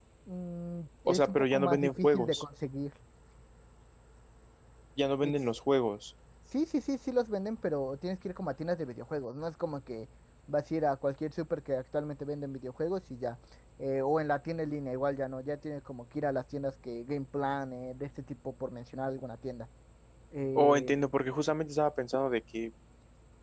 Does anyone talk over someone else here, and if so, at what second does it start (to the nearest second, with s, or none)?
1 s